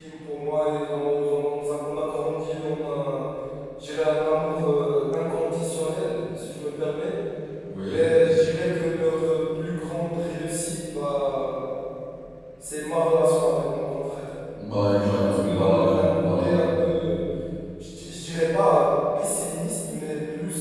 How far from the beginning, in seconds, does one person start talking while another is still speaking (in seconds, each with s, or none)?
15.2 s